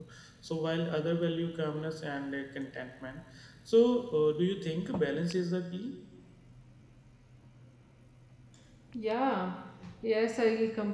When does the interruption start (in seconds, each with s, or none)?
none